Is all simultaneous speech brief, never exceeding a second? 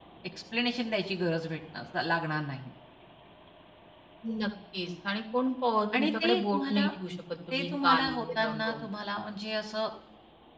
No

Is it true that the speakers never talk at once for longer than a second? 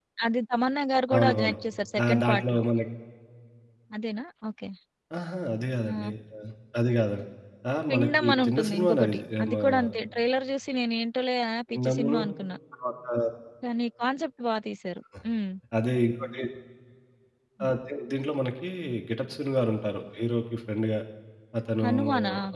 No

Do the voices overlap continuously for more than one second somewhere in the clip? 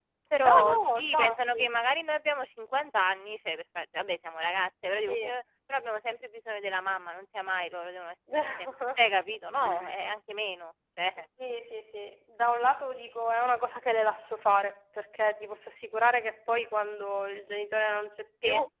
Yes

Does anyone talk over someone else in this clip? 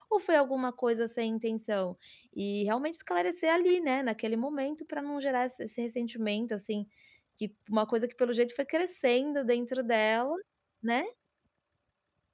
No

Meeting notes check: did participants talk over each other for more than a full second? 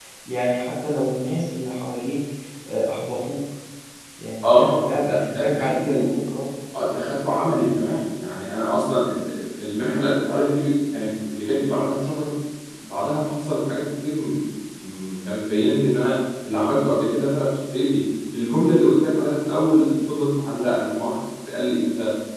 Yes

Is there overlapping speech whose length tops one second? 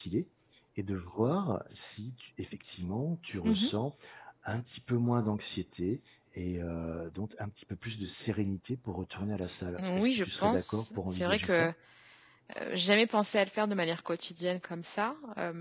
Yes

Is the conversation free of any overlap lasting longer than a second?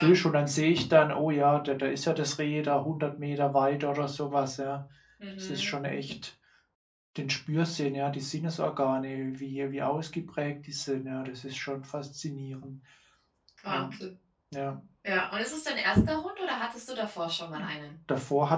Yes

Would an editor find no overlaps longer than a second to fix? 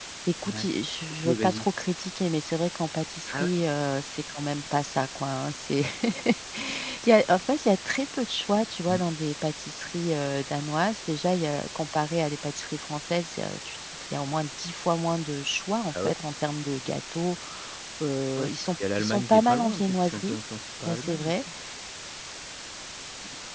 No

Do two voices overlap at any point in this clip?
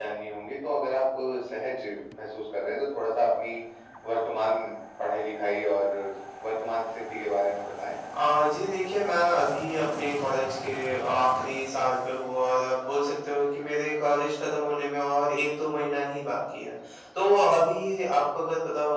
No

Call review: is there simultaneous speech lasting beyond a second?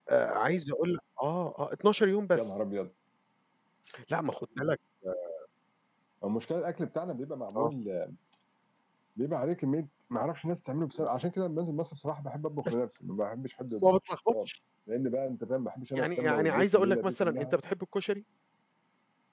Yes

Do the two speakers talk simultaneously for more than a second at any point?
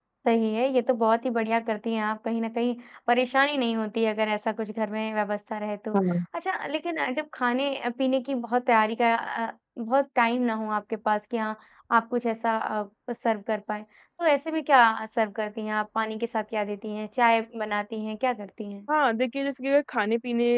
No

